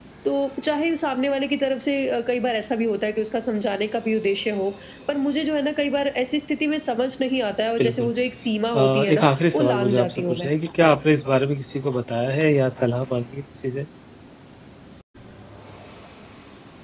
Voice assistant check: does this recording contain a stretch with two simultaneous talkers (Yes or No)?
Yes